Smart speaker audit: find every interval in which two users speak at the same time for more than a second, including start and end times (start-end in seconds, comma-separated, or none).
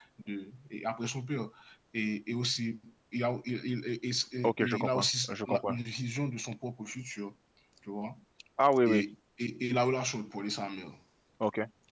4.4-5.7